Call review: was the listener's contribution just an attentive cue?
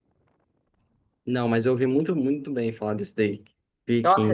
No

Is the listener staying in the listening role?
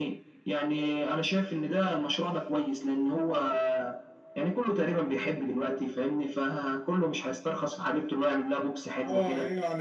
No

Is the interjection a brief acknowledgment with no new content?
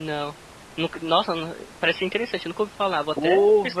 No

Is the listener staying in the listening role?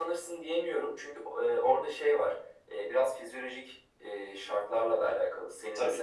Yes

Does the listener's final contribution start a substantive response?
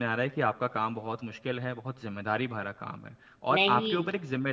No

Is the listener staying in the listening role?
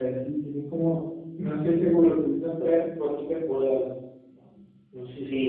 No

